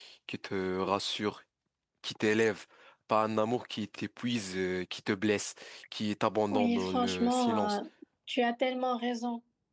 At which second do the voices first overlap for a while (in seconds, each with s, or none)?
6.5 s